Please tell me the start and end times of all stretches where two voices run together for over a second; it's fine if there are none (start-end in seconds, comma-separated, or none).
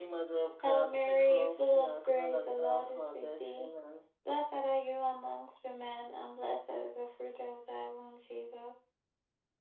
0.6-3.7